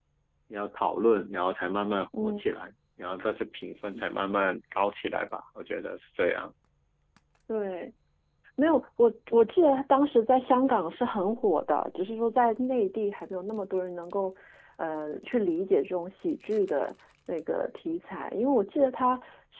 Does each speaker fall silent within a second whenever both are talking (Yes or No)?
Yes